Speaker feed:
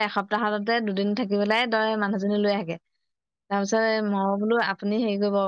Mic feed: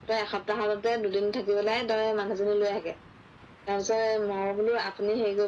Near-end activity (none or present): none